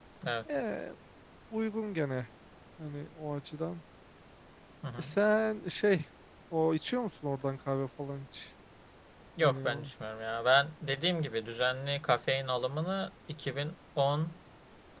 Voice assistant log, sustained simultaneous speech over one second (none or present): none